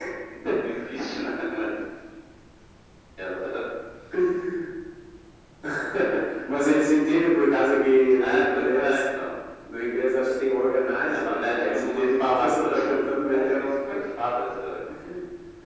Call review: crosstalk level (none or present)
present